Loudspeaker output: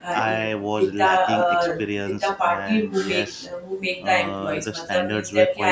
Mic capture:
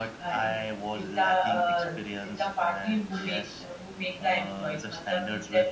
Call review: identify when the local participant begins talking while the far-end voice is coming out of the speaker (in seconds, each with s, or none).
none